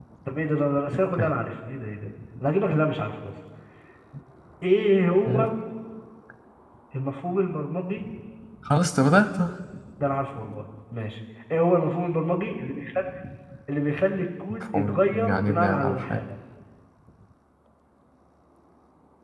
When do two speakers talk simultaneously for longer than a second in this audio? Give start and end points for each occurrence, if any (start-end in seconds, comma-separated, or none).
14.5-16.2